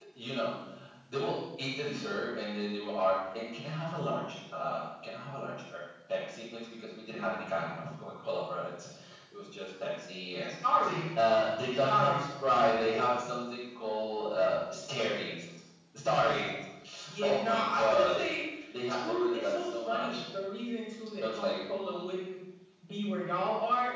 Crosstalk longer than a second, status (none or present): present